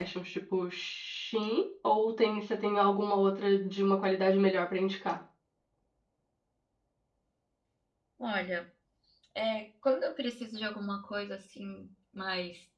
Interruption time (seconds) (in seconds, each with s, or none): none